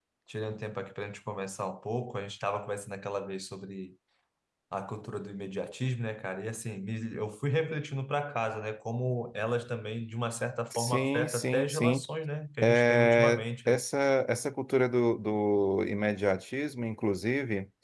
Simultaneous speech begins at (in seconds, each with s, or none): 10.7 s